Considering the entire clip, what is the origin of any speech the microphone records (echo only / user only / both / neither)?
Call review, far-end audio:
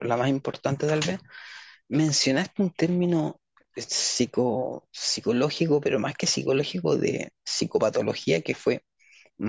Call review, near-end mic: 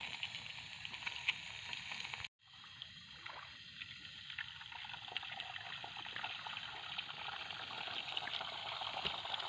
neither